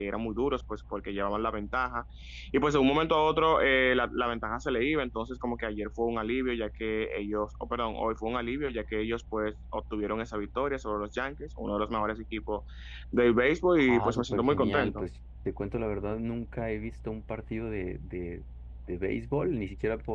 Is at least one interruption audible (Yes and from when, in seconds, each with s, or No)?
Yes, from 13.9 s